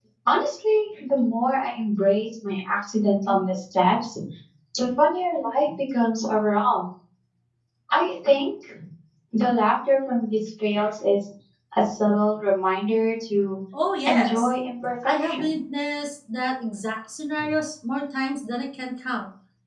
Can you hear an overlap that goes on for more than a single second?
No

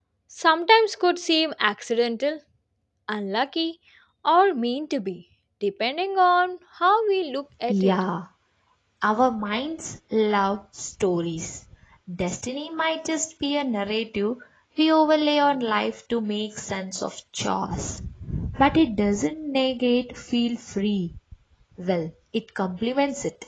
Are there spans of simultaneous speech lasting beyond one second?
No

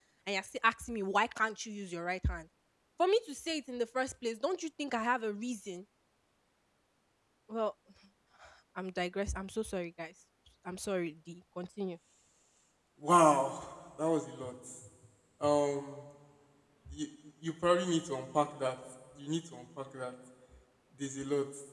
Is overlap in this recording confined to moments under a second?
Yes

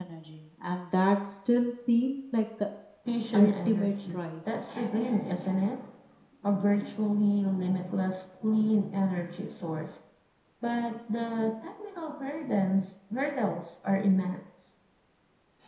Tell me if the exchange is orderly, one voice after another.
No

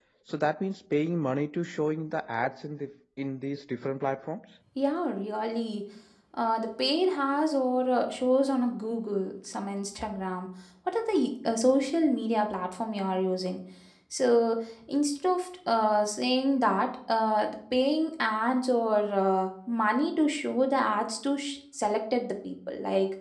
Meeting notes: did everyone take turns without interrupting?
Yes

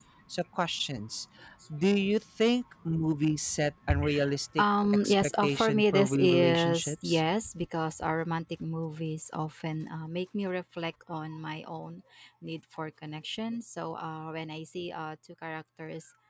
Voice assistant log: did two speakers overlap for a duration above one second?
Yes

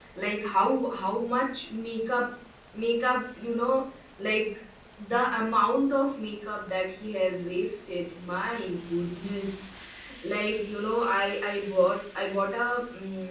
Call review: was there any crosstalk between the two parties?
No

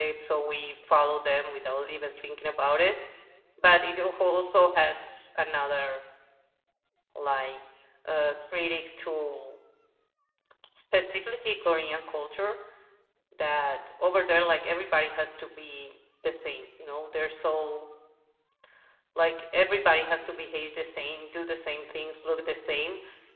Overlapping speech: No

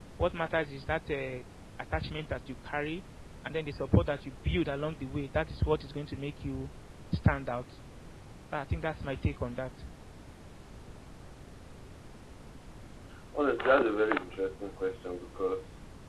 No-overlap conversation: Yes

